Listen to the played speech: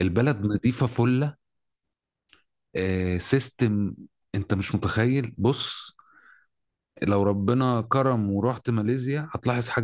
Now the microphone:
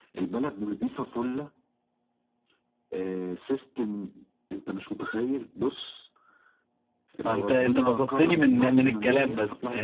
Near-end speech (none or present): present